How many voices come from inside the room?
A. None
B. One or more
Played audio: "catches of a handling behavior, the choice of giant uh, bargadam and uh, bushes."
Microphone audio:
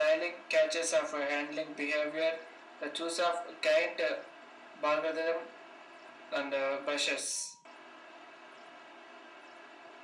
A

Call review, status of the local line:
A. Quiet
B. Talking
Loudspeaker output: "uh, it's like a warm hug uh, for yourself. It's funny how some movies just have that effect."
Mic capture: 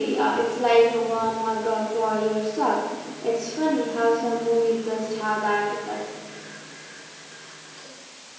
A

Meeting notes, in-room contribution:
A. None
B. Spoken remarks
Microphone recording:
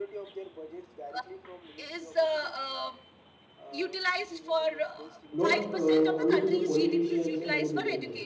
B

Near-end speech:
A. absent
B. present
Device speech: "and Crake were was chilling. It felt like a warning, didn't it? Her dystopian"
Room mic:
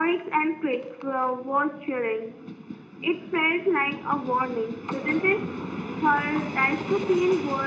A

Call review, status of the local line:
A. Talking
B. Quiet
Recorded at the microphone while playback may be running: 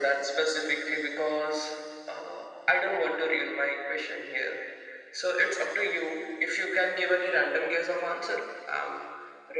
B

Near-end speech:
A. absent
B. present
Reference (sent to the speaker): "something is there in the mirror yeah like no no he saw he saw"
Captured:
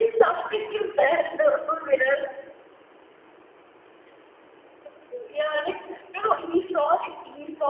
A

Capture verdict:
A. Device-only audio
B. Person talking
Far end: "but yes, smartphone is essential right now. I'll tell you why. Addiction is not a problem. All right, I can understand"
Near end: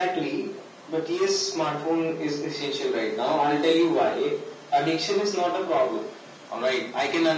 A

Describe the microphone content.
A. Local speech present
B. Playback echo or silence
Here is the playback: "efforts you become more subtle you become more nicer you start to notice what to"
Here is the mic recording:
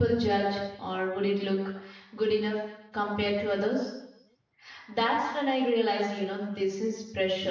A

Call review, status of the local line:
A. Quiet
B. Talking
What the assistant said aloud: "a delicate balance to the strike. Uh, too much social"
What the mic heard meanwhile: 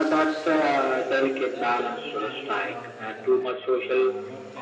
B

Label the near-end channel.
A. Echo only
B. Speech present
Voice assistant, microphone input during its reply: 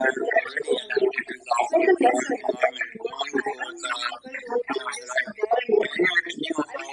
A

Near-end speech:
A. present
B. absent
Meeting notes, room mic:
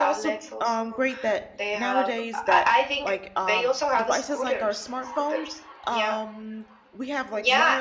A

